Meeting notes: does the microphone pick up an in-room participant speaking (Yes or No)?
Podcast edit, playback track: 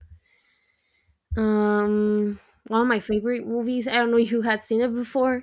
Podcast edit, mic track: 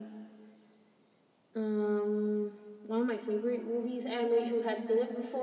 No